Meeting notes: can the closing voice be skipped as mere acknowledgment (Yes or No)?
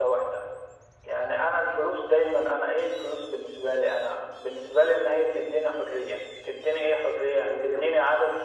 Yes